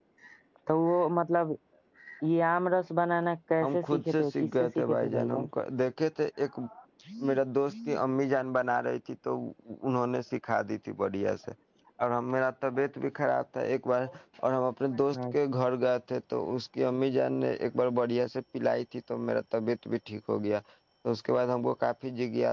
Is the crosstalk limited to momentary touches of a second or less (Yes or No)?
No